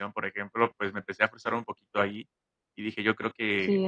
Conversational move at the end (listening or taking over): taking over